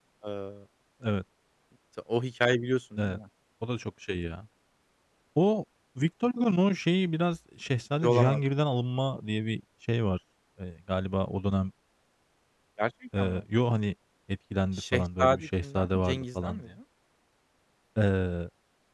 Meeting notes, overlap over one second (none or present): present